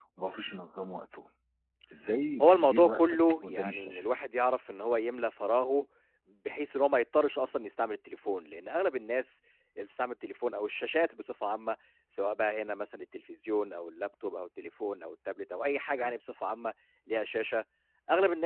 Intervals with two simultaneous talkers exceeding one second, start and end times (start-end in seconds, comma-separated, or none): 2.4-4.0